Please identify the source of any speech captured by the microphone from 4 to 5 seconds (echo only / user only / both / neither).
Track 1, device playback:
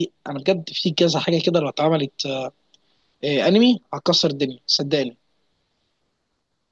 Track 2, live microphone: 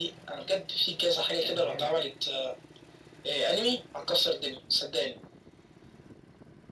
echo only